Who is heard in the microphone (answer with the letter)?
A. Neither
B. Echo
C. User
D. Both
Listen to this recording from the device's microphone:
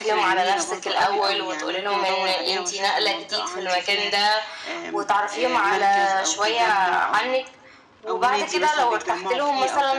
D